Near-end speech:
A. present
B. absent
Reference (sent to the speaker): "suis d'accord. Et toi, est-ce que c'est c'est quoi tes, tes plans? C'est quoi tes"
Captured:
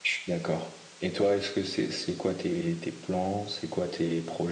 B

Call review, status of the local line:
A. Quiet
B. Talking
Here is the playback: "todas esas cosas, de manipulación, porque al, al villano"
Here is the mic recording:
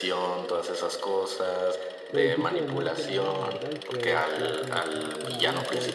B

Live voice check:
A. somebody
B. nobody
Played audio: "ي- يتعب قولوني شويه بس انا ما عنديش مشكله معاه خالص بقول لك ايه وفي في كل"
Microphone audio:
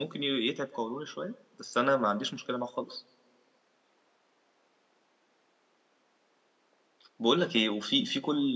B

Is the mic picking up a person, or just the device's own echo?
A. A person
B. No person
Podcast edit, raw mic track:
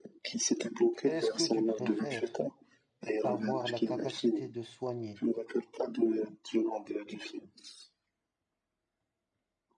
A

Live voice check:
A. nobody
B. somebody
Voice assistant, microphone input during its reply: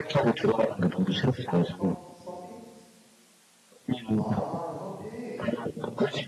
B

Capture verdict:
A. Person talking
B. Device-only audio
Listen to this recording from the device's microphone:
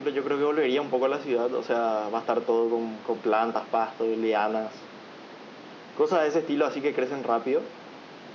B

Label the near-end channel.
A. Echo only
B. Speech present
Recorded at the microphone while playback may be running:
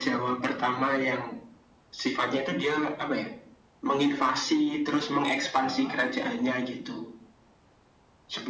B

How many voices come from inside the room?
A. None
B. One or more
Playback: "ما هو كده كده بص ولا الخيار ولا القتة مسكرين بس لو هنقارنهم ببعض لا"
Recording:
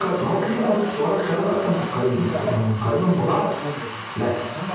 B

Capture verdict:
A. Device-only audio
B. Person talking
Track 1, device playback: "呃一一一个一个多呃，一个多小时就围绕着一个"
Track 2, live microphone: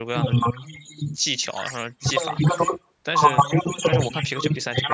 B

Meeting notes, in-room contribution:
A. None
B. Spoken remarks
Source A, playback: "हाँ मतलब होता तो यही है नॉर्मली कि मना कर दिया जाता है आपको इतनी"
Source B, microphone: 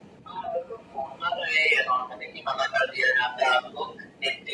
A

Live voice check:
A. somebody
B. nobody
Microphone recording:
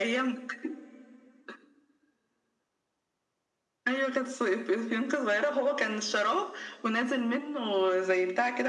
B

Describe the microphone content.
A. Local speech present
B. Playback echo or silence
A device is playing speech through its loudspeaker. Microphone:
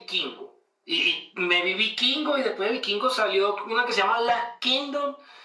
B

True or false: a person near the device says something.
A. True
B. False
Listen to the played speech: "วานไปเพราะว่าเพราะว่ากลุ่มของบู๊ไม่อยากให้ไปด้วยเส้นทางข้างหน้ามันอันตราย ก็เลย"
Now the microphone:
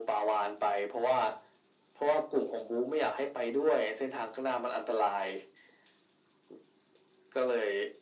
B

